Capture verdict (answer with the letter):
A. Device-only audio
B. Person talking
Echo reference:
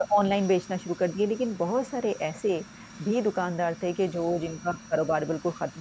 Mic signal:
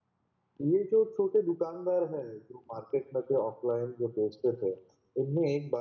B